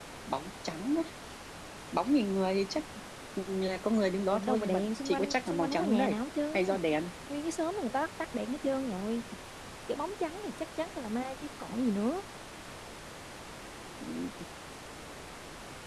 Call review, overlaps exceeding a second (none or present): present